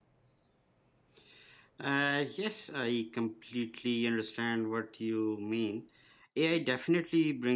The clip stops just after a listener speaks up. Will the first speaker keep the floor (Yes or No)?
Yes